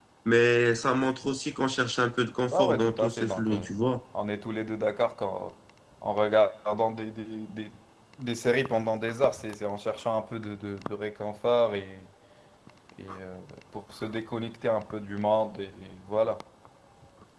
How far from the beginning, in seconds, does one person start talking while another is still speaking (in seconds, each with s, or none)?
2.5 s